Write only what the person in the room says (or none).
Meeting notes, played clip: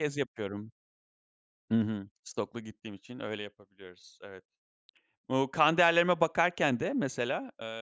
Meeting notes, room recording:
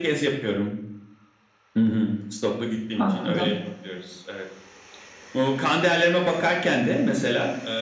Anladım.